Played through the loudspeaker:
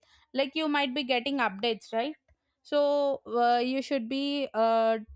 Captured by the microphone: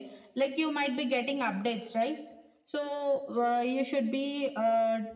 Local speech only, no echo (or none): none